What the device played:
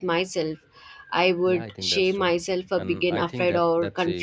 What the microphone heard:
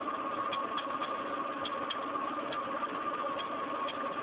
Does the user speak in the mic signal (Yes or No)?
No